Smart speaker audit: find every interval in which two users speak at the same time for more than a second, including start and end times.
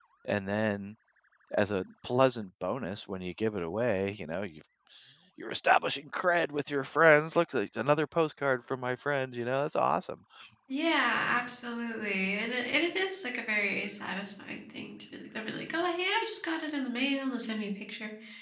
none

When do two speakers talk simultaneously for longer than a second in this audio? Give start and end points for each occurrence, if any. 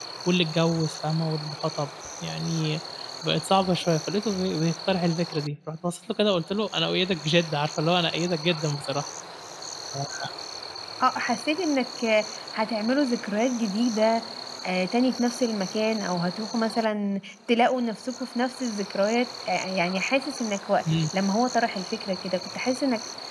none

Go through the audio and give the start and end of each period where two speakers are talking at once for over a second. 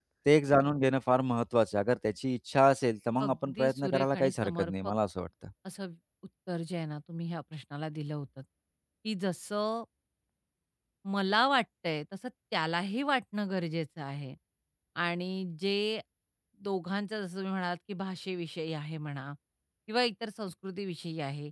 3.2-4.9

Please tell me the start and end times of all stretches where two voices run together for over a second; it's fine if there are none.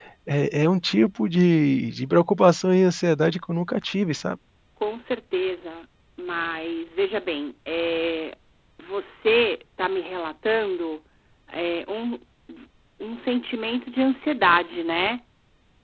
none

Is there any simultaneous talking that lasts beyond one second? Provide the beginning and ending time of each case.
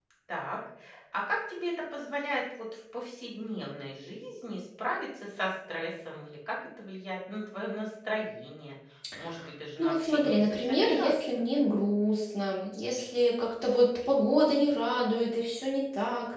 9.8-11.4

